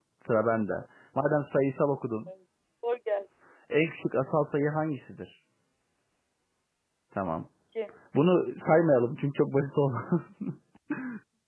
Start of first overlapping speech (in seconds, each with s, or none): none